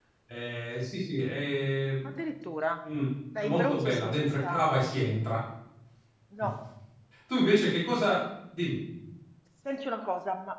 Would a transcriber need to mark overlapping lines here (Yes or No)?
Yes